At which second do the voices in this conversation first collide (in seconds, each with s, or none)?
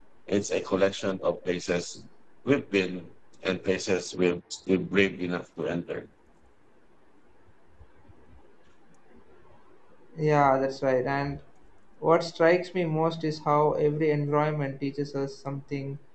none